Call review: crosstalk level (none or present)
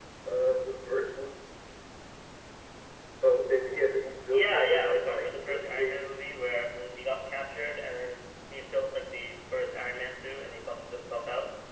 present